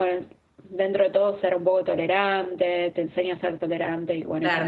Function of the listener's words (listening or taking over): taking over